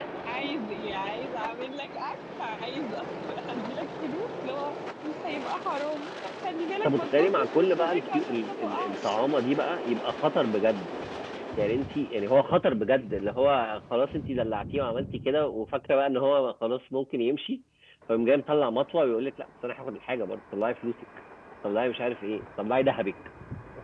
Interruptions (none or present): present